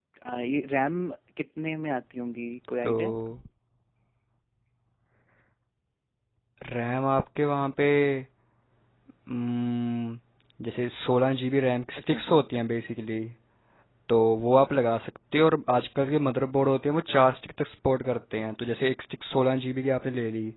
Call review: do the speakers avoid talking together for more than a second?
Yes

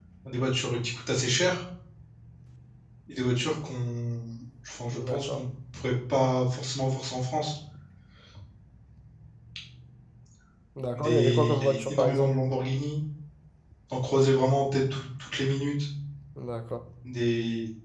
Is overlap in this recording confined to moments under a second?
No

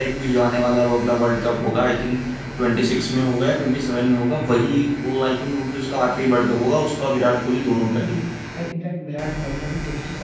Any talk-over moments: No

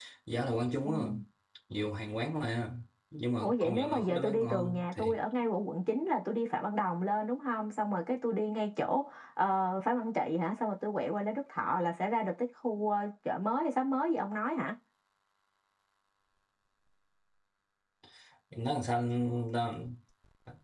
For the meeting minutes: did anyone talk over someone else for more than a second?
Yes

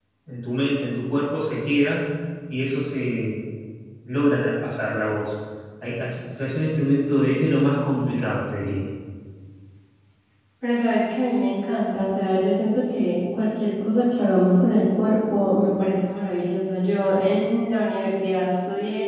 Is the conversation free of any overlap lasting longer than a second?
Yes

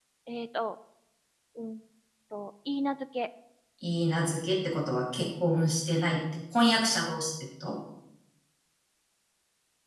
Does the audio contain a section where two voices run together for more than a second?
No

